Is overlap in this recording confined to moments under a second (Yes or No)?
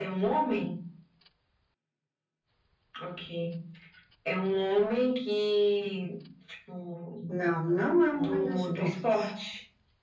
No